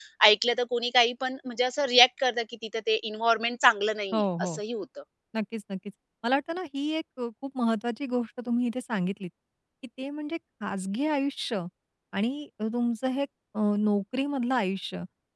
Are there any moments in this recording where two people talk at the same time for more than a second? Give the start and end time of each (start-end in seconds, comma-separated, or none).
none